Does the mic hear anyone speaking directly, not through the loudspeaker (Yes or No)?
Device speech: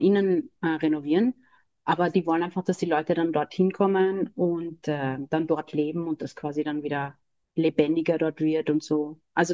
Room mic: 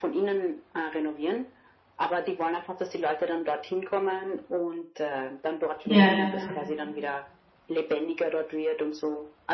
Yes